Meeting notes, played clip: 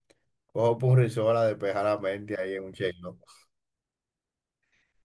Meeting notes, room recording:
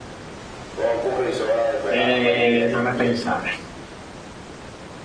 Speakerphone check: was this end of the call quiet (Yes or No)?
No